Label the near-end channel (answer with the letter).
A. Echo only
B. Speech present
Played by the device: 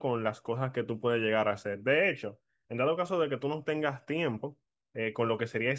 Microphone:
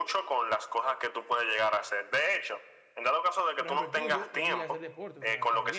B